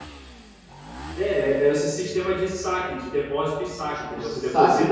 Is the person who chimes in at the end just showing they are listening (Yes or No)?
No